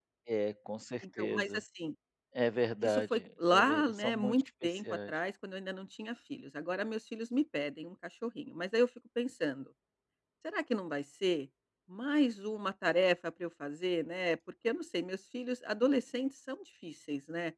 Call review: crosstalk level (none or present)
present